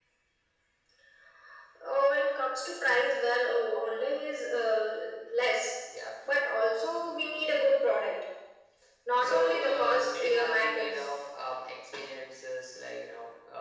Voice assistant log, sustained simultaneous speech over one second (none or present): present